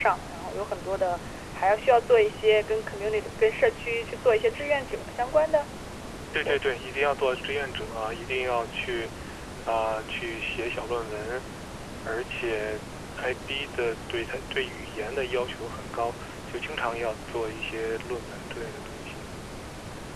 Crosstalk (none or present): none